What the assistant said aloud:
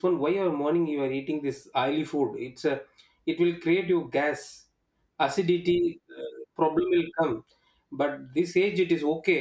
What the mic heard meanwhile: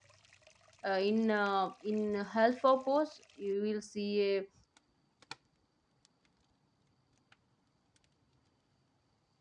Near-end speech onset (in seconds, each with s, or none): 0.9 s